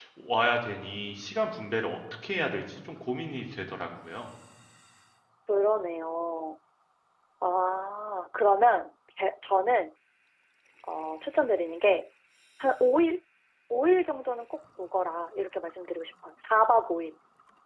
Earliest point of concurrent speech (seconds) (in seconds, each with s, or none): none